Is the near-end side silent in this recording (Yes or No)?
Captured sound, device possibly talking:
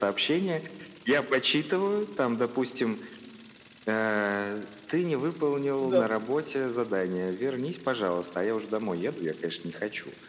No